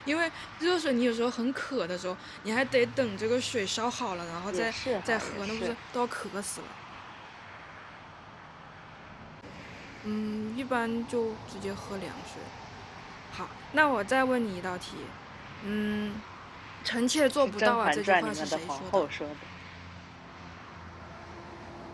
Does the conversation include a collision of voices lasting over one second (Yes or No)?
Yes